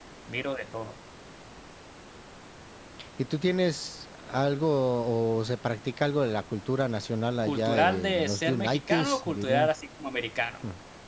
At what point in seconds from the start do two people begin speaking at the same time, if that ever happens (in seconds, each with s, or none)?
7.4 s